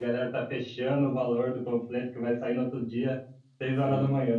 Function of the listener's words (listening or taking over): listening